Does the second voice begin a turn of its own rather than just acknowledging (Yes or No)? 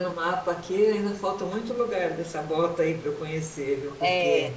No